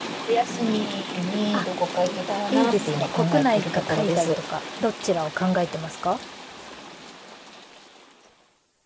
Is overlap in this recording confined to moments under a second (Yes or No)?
No